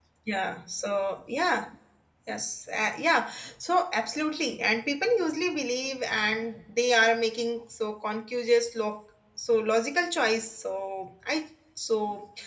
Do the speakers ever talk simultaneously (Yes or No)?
No